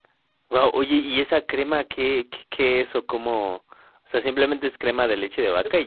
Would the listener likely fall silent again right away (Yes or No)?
No